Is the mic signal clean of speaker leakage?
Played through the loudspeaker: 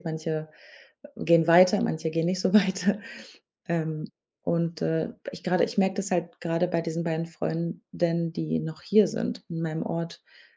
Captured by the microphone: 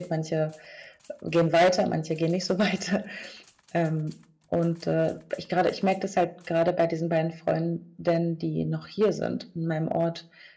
No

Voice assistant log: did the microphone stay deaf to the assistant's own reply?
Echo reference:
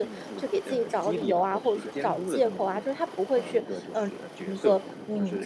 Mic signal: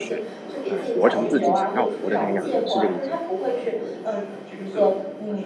No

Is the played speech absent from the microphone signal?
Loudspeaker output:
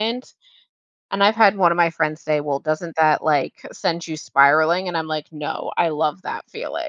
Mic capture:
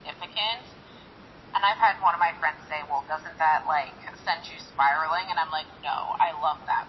No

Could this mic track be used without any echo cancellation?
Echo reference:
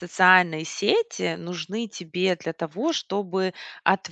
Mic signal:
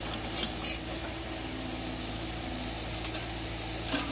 Yes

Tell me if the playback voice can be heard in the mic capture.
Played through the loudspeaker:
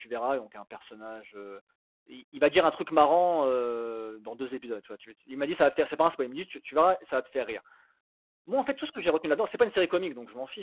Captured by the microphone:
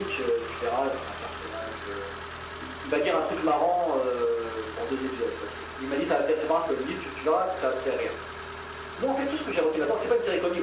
Yes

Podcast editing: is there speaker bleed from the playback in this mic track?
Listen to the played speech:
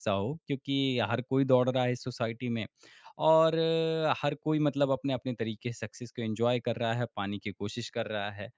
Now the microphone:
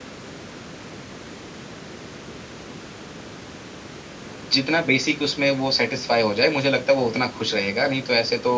No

